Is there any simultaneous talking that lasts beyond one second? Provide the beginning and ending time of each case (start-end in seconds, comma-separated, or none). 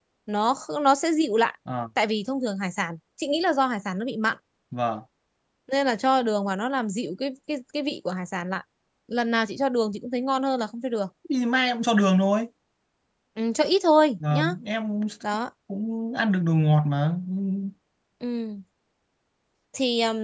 none